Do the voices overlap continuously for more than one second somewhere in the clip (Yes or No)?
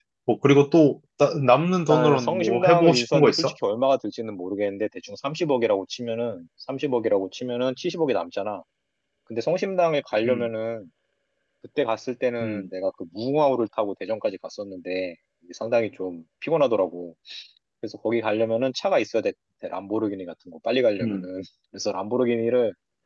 Yes